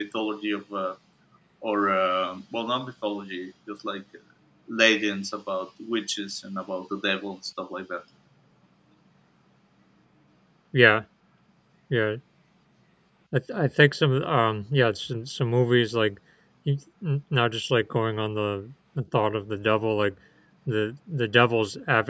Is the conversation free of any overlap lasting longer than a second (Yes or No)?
Yes